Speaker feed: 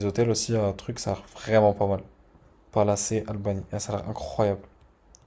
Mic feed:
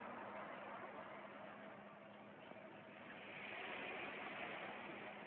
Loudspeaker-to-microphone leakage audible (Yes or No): No